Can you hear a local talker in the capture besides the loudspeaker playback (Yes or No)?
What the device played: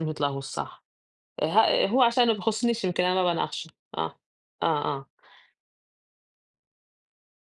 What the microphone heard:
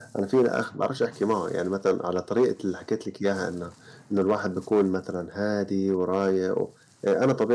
Yes